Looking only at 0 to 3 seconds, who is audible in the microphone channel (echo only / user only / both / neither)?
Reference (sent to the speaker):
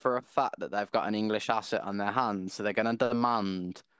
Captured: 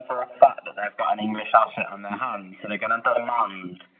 echo only